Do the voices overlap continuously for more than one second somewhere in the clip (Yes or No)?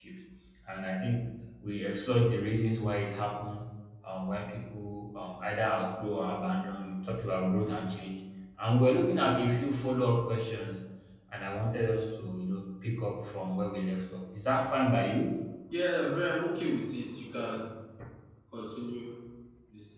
No